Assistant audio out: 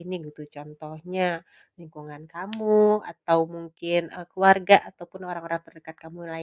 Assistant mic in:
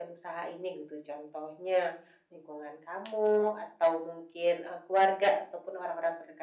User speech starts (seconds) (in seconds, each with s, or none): none